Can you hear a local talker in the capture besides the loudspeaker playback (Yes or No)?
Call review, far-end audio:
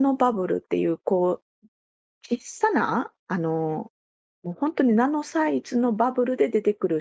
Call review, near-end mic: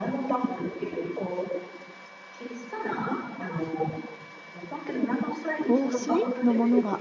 Yes